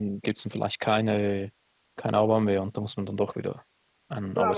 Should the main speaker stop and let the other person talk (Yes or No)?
Yes